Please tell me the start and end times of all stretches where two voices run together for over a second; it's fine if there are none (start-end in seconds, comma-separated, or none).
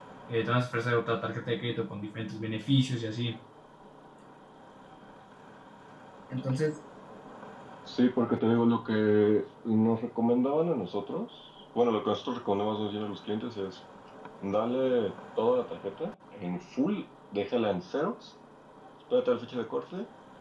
none